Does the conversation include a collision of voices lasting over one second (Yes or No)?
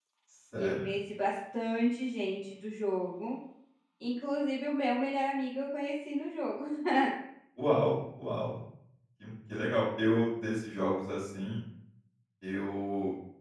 No